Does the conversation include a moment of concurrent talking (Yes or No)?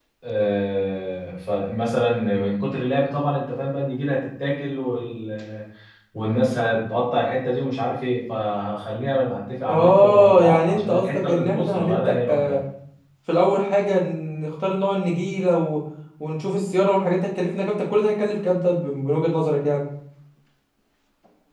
Yes